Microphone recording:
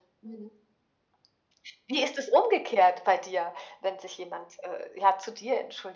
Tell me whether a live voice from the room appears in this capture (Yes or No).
No